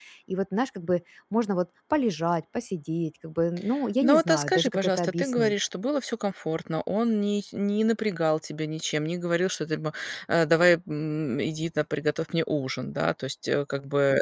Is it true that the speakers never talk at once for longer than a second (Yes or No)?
No